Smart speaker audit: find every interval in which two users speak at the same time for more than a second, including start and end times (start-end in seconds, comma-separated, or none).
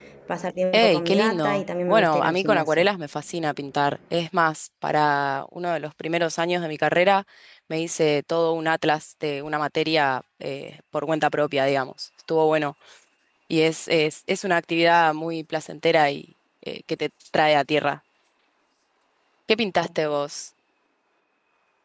0.7-2.9